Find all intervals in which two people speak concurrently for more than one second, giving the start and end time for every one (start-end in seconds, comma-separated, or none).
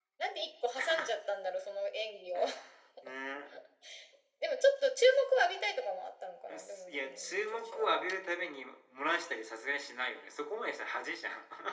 6.6-8.1